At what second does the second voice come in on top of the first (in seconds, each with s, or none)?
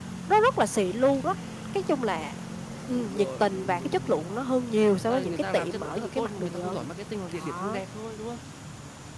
2.9 s